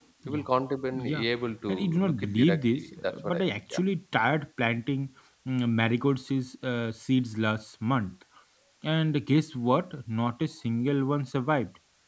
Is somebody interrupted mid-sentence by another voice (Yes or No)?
Yes